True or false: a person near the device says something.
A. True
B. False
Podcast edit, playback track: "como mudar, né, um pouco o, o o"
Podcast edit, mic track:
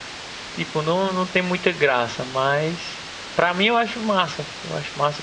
A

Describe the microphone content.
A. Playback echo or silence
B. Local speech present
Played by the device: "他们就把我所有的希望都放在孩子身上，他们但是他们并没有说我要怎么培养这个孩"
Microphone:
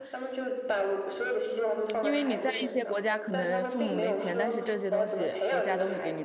B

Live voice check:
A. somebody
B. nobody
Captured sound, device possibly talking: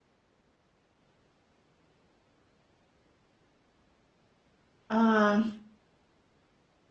A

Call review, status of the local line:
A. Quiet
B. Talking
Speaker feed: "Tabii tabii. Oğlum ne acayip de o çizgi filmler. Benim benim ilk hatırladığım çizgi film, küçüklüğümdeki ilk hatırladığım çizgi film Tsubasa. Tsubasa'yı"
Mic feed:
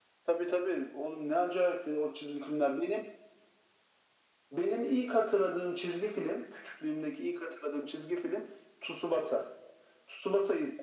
A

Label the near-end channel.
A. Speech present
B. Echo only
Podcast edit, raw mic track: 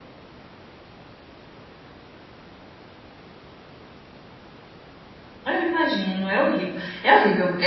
A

